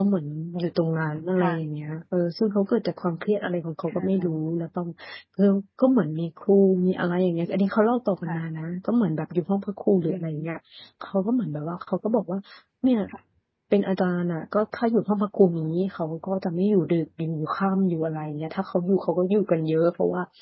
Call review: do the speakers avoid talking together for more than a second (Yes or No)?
Yes